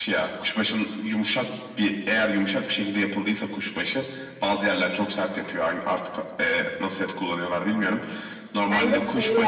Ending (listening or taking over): listening